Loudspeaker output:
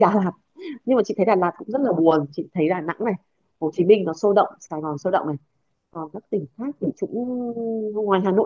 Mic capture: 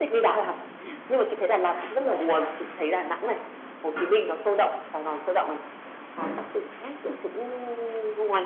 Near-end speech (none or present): none